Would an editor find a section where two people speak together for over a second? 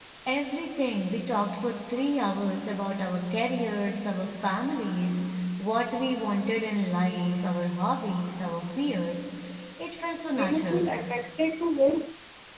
No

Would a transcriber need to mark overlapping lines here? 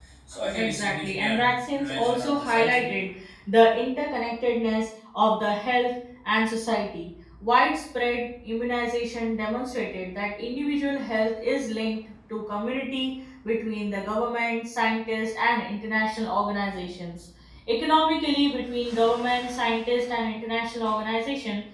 Yes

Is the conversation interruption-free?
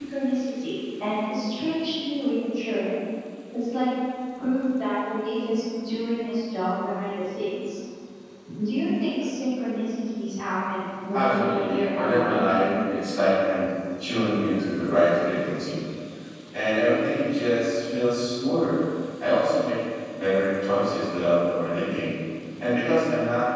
No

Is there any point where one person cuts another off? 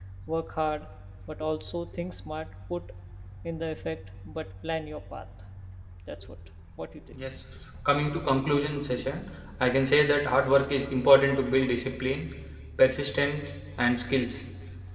No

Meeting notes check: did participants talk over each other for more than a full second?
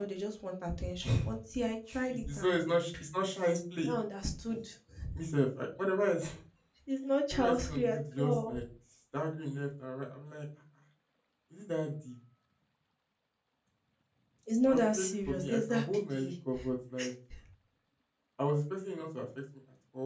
Yes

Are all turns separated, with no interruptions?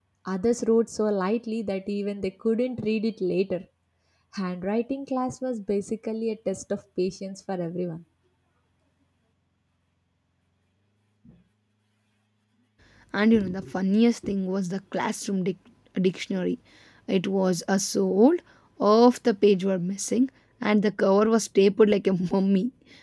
Yes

